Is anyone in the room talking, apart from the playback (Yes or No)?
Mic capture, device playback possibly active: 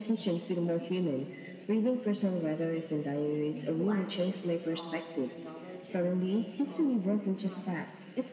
Yes